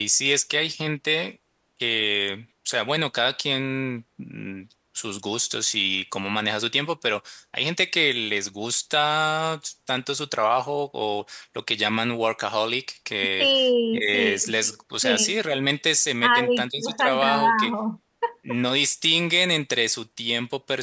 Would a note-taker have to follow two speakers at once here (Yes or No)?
Yes